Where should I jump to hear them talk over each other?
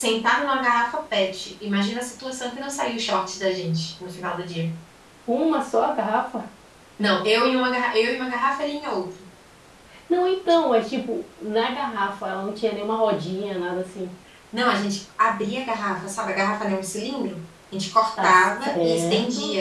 18.2 s

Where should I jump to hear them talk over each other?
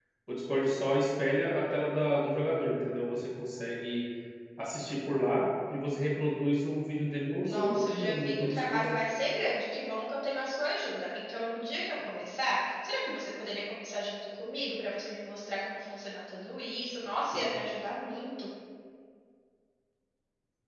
7.4 s

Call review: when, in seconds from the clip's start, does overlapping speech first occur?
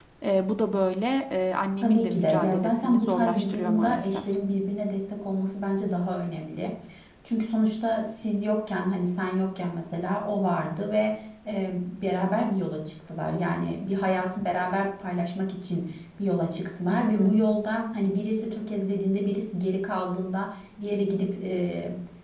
1.8 s

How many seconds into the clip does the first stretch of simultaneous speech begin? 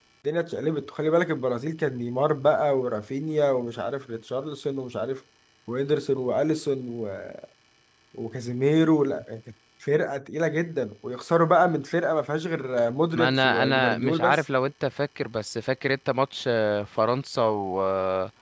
13.1 s

